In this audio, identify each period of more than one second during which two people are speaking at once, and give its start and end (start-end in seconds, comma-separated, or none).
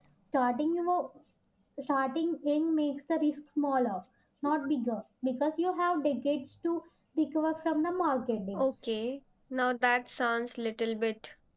none